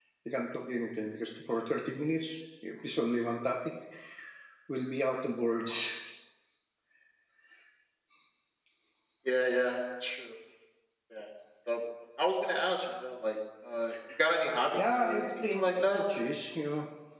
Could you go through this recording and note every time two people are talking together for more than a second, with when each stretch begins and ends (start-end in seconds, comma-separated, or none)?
14.8-16.0